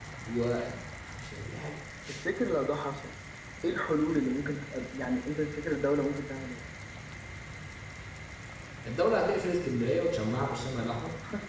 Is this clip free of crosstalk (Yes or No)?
Yes